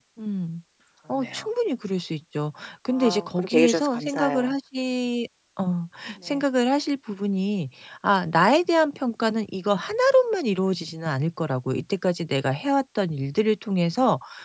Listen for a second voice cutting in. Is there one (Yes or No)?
Yes